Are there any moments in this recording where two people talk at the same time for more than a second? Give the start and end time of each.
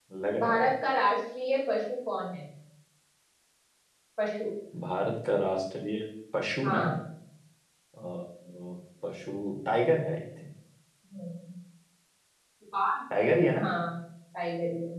none

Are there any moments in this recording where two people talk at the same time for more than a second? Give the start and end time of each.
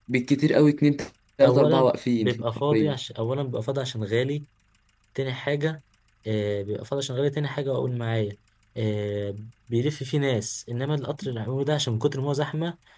1.4-3.0

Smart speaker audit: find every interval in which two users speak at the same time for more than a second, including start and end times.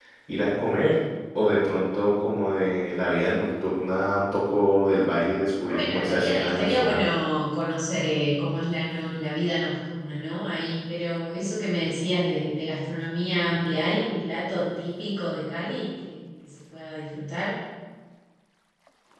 5.7-7.0

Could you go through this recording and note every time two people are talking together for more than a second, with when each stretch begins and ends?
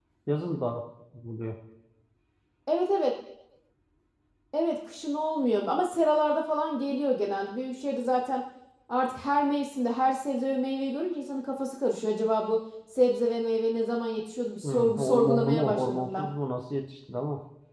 14.6-16.3

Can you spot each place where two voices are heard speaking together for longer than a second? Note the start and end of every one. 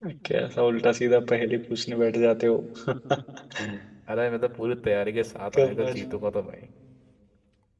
none

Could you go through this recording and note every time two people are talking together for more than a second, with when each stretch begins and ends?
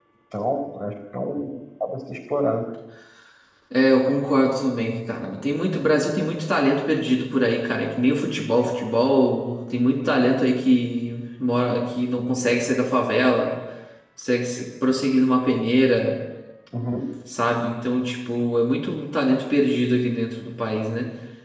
none

